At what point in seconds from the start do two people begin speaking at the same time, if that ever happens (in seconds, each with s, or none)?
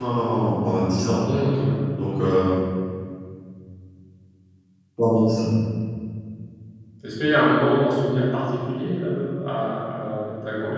none